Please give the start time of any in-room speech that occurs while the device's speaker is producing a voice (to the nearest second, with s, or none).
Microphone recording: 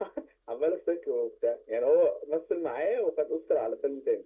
none